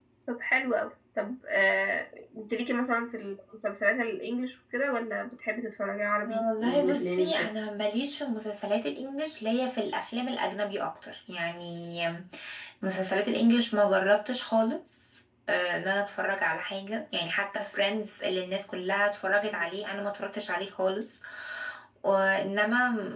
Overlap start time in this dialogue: 6.3 s

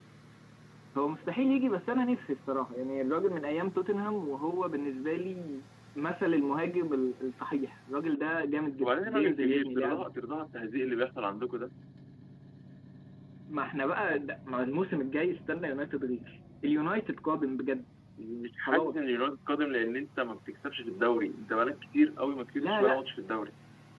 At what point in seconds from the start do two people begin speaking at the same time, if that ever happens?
8.8 s

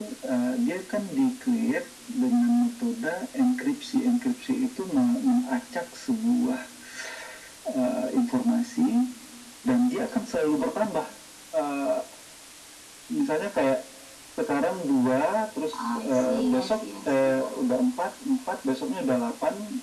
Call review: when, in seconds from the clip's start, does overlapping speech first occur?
16.1 s

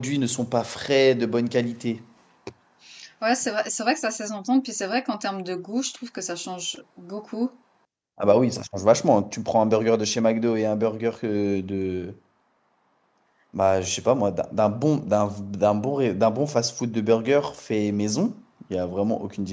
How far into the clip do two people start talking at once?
none

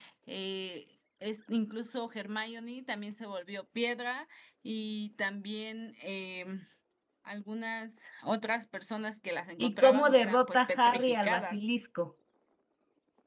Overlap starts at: 9.6 s

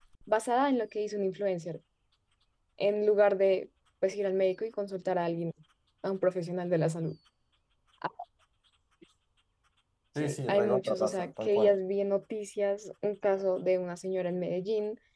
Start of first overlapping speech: 10.2 s

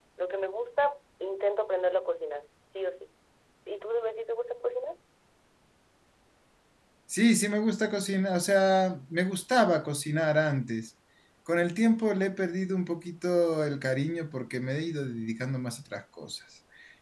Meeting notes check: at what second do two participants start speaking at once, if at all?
none

